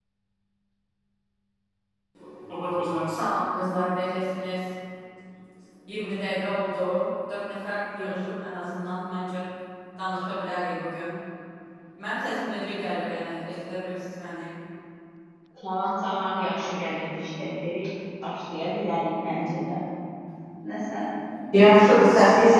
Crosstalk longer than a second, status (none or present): none